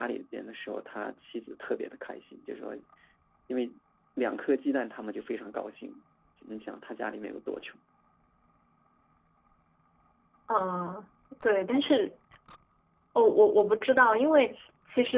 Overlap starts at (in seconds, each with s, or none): none